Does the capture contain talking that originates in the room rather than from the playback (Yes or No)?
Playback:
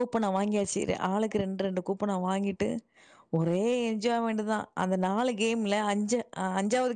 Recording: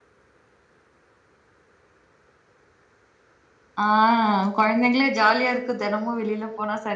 Yes